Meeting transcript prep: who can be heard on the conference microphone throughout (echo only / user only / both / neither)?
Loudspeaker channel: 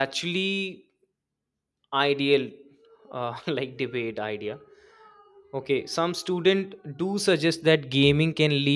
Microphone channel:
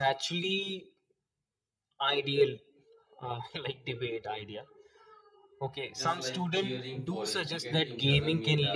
both